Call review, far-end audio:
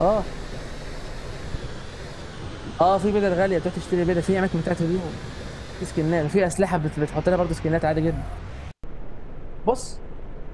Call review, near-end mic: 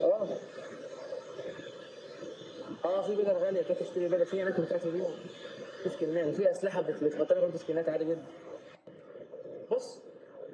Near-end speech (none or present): none